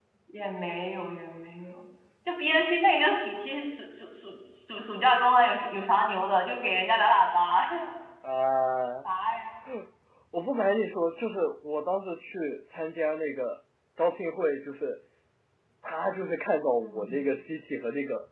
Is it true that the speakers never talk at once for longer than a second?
Yes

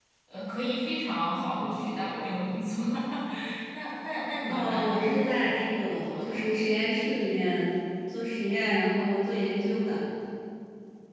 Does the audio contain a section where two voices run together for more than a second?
Yes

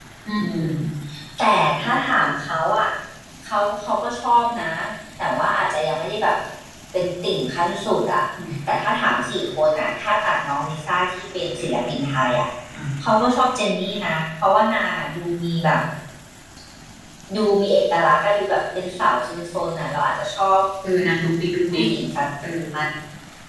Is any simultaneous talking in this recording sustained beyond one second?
No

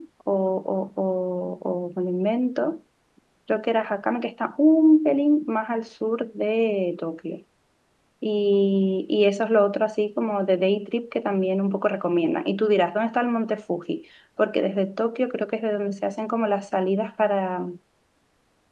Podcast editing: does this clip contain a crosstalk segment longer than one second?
No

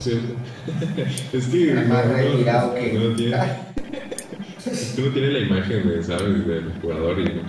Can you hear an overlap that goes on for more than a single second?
Yes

